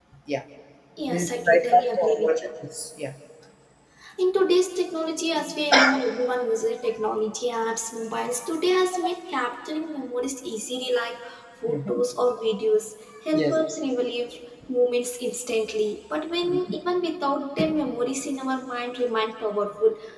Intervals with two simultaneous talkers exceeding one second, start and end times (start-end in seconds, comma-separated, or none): 1.1-2.5